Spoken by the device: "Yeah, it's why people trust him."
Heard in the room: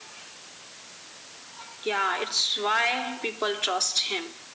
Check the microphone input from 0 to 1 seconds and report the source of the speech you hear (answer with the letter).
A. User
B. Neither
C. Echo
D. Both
B